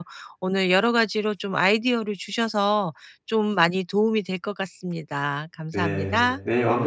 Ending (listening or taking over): taking over